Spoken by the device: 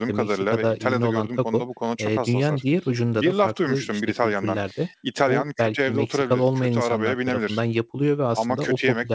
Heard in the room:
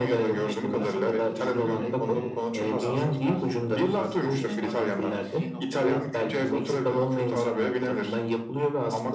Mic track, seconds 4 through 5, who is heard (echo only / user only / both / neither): both